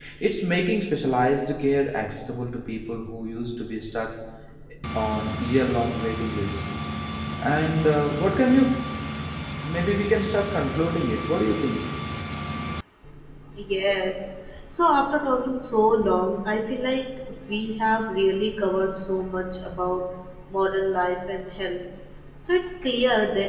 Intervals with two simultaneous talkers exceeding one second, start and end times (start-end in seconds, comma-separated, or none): none